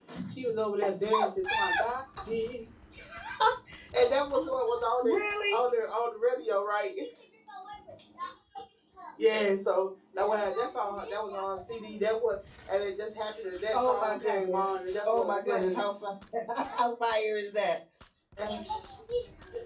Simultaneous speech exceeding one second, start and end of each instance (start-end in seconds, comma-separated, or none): 13.7-15.8